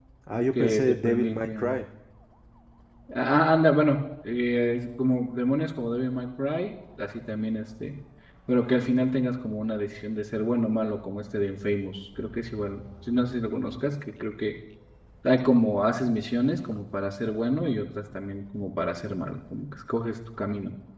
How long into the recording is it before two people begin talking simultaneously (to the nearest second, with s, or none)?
1 s